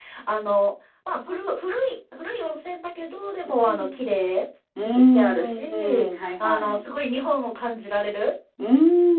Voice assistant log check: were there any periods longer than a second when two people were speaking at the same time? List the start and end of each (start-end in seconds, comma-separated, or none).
4.8-6.8